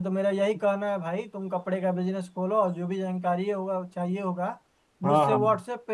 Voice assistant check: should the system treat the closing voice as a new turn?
No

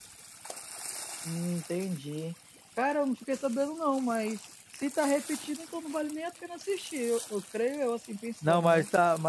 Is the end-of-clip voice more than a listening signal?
Yes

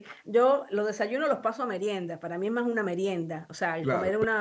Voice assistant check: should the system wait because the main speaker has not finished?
Yes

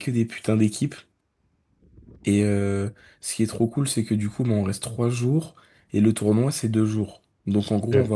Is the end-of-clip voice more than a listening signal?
No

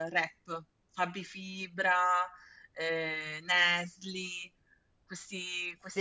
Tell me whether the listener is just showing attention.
No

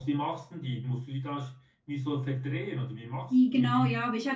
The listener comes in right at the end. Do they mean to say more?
Yes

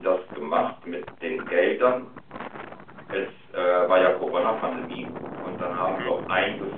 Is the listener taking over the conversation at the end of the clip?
No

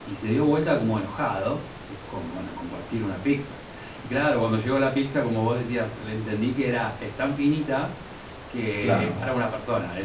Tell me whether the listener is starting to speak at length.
No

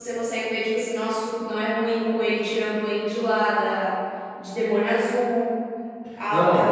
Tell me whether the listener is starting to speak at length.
No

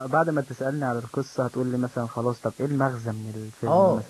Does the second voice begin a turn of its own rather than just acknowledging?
Yes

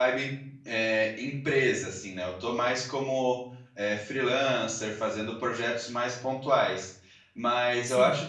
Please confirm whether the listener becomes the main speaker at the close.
No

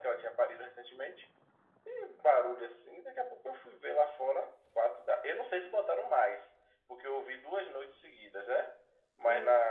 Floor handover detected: No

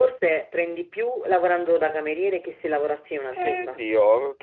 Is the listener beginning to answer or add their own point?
Yes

